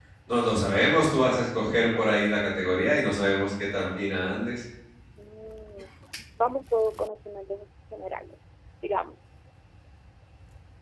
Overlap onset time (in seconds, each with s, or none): none